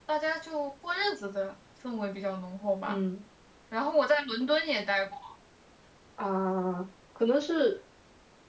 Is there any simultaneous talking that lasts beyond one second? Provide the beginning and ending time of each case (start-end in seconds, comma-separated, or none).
none